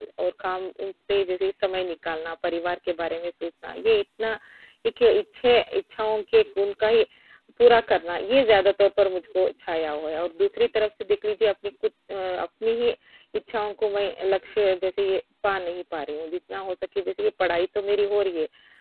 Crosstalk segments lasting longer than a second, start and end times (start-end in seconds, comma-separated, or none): none